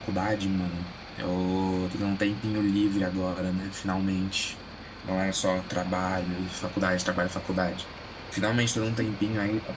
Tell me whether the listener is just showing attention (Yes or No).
Yes